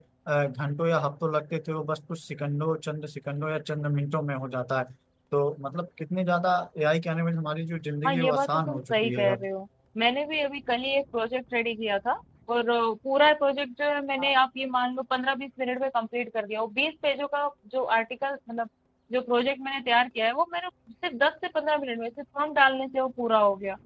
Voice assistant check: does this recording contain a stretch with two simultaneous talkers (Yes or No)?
Yes